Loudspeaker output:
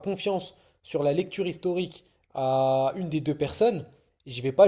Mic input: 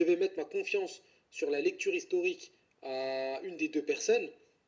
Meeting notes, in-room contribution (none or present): none